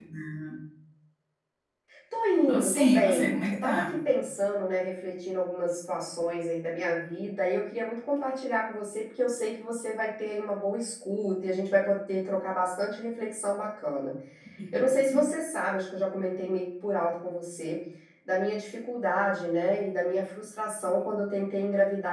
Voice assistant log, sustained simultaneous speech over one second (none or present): present